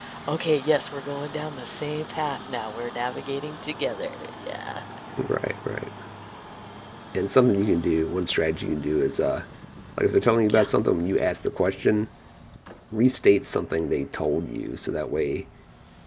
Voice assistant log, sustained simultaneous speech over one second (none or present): none